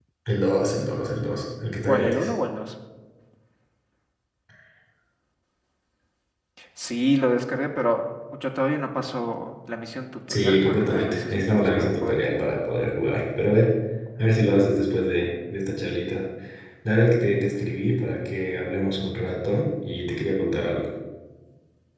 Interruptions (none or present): present